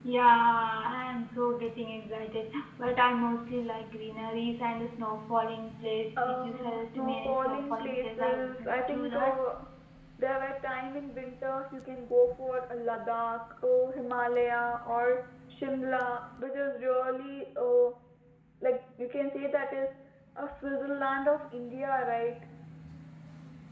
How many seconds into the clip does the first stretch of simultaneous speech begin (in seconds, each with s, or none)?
6.2 s